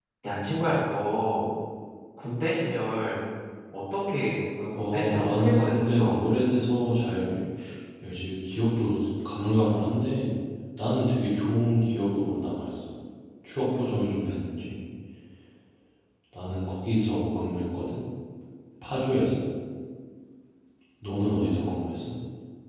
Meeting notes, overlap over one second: present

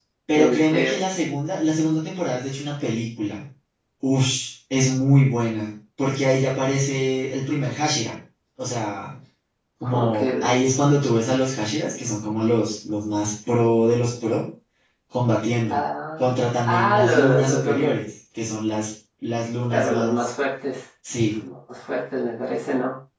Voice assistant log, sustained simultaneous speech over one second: present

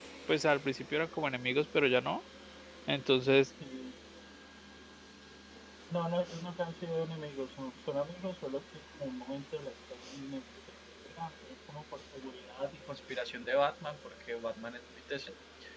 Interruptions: none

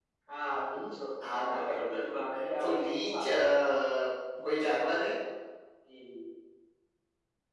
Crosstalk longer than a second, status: present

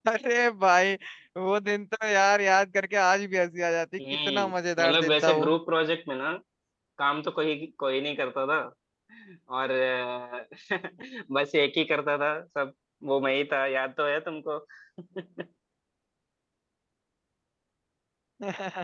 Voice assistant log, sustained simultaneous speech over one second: present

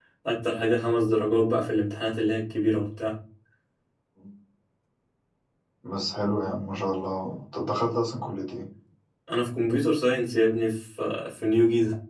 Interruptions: none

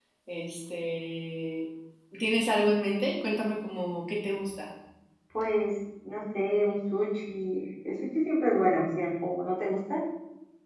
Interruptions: none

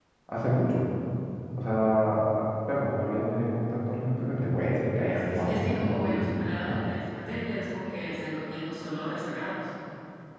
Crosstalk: present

